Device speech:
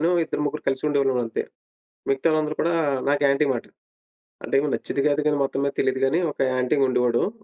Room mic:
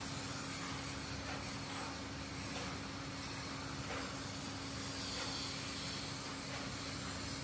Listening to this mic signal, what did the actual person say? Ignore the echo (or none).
none